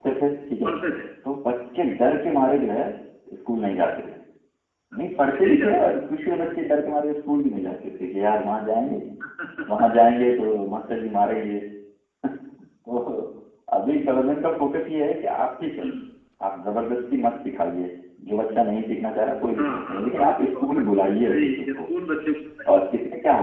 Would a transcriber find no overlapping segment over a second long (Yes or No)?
No